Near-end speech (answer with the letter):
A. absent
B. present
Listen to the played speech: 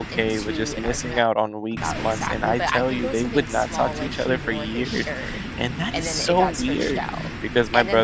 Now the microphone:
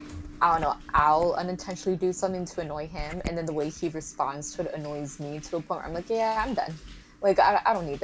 B